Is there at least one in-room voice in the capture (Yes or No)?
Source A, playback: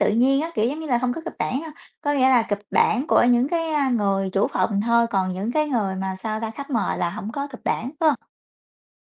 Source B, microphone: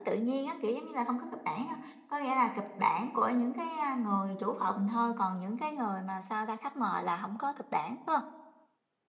No